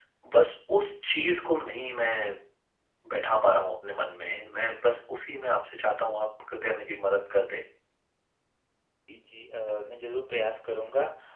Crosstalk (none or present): none